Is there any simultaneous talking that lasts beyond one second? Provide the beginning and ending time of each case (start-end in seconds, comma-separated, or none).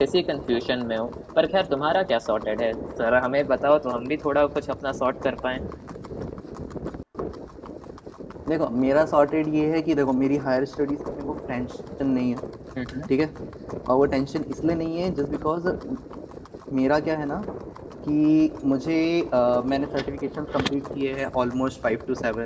none